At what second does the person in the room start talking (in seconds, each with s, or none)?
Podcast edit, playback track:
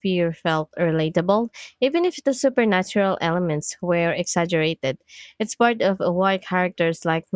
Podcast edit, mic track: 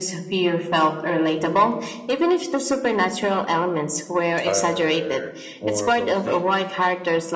4.4 s